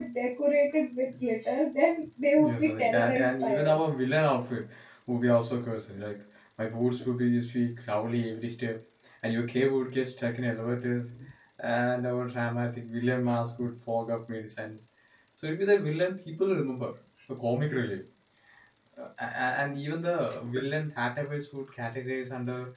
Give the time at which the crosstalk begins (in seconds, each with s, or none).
2.4 s